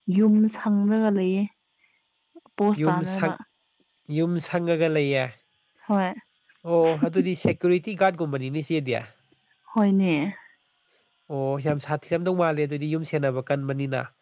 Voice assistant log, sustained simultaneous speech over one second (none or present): none